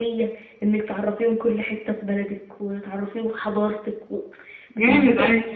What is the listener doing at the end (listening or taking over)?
taking over